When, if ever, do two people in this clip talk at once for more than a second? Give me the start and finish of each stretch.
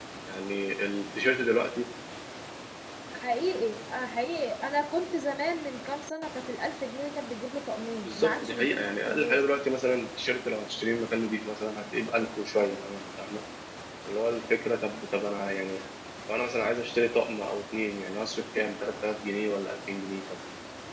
8.1-9.4

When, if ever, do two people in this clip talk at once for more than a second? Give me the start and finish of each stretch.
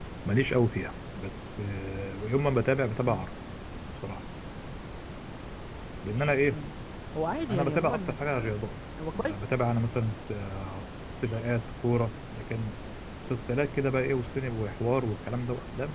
7.5-8.7

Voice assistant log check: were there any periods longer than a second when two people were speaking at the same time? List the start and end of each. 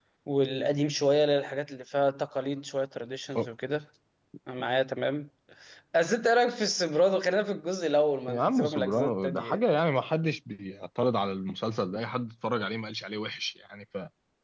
8.3-9.6

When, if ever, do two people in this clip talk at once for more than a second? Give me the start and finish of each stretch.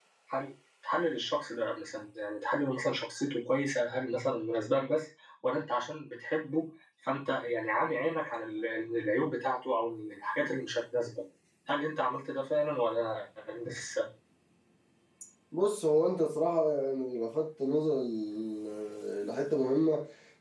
none

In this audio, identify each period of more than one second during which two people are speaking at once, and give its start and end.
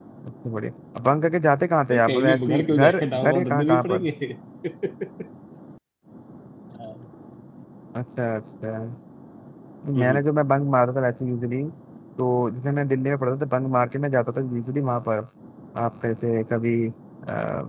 1.9-3.9

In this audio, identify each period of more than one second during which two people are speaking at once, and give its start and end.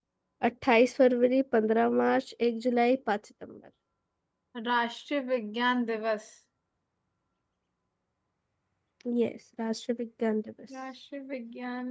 none

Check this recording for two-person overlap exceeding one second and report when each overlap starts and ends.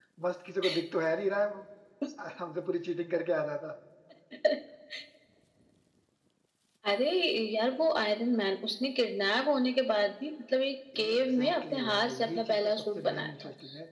11.0-13.3

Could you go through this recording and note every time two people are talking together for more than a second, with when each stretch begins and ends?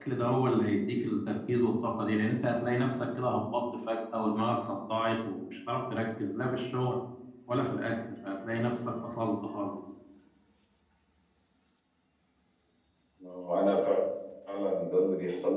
none

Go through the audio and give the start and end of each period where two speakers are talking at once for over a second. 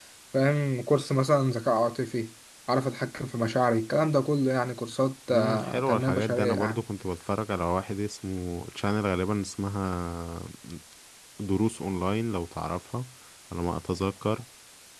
5.3-6.8

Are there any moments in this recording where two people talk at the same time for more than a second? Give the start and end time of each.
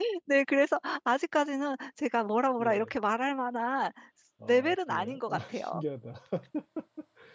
4.5-5.8

